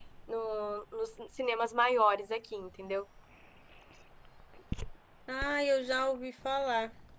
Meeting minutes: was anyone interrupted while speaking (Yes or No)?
No